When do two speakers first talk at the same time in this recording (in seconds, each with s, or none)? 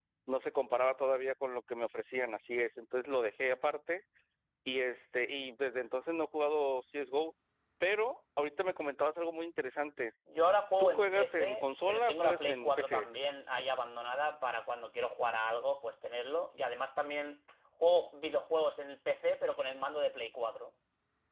10.8 s